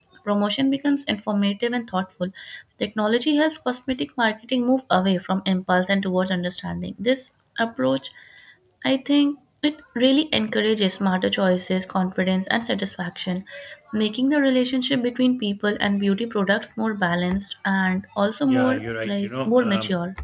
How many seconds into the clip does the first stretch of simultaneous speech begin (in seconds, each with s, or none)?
18.5 s